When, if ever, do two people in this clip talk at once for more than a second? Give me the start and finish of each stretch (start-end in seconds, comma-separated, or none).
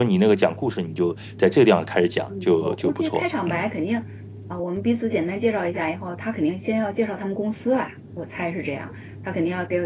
2.4-3.7